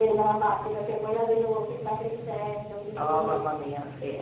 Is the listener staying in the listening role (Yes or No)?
No